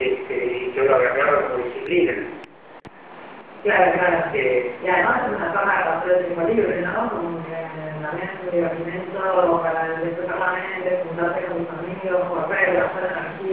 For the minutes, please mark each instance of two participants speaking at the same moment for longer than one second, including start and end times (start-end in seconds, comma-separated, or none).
none